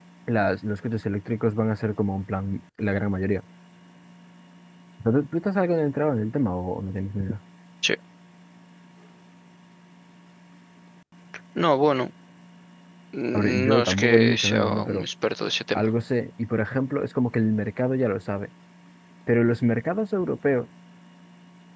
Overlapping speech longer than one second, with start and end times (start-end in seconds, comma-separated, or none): 13.3-15.0